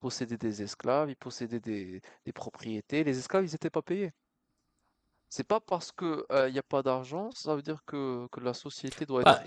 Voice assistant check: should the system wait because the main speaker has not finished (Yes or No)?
No